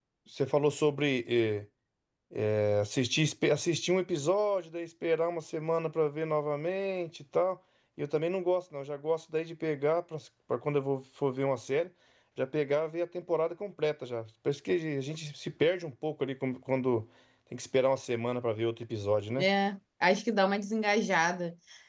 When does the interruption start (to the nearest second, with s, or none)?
none